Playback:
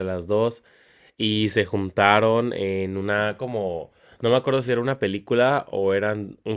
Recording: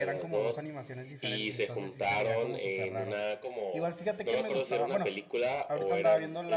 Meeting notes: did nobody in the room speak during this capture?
No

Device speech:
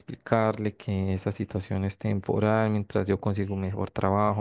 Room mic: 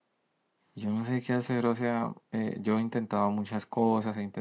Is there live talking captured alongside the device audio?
Yes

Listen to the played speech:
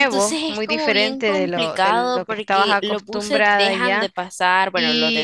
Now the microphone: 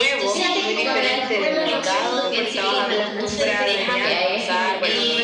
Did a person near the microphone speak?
Yes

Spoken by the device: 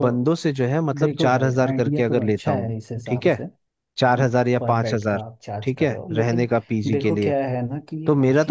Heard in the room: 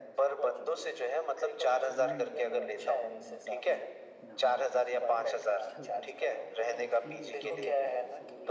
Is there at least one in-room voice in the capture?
Yes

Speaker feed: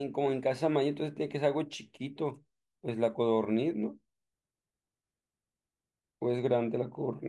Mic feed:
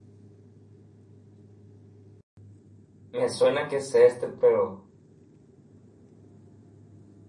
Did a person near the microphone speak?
Yes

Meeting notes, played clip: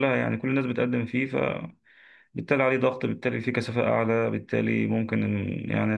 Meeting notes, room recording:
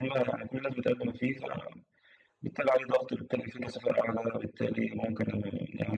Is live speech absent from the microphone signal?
Yes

